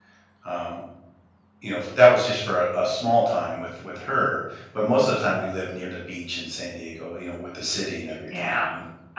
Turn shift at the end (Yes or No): Yes